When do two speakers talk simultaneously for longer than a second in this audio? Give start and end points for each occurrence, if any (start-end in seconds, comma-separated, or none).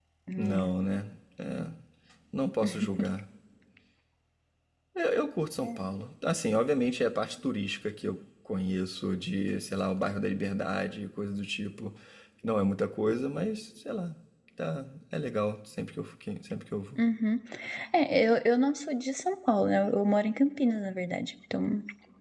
none